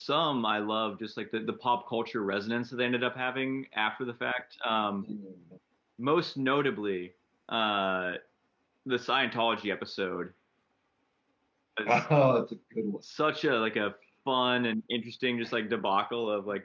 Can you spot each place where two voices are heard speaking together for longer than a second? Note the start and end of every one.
none

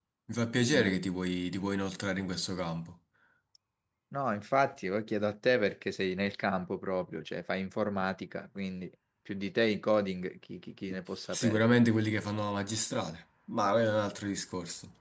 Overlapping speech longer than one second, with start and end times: none

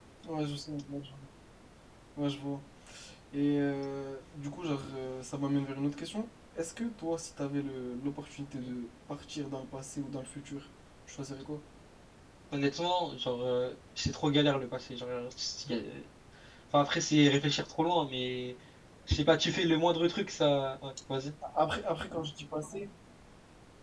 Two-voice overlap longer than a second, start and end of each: none

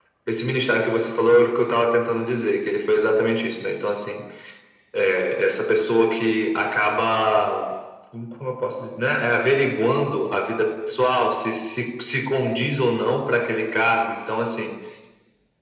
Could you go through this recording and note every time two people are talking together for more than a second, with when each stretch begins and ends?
none

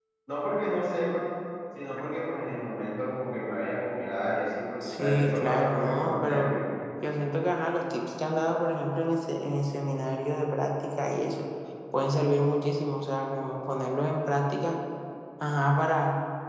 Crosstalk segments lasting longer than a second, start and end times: 4.8-6.5

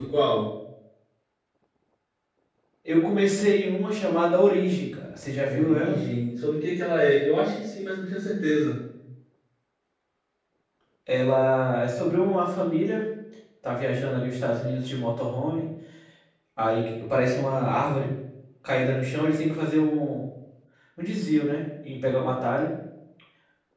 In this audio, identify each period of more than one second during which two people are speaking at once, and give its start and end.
none

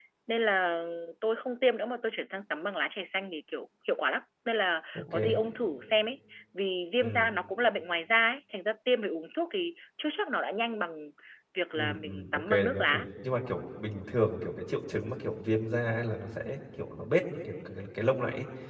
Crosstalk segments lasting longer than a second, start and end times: 11.7-13.0

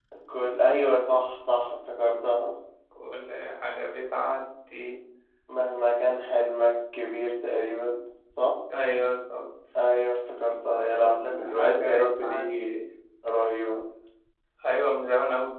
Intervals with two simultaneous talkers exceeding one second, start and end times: 10.9-12.8

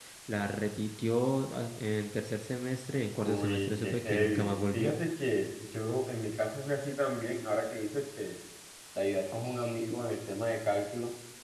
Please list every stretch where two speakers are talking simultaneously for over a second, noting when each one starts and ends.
3.2-5.0

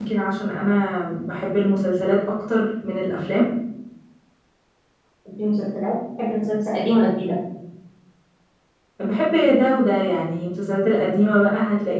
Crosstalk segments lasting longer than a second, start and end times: none

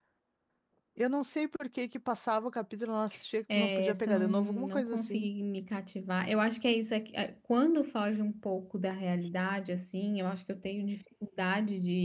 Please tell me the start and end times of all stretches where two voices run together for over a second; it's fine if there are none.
3.5-5.3

